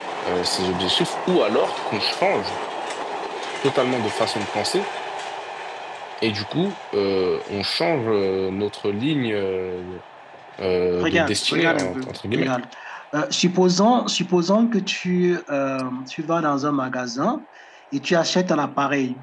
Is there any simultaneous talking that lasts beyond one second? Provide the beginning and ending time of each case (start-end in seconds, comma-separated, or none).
11.0-12.5